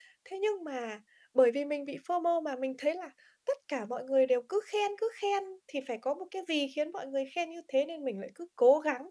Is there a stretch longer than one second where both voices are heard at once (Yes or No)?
No